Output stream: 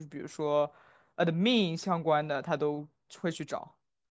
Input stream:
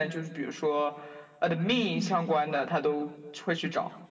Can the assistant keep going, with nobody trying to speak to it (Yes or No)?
Yes